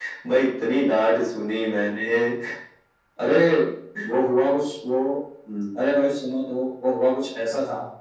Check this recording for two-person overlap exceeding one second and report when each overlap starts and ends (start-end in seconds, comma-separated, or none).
none